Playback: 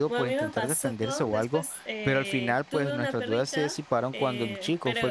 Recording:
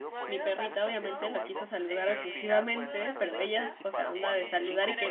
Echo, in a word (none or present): present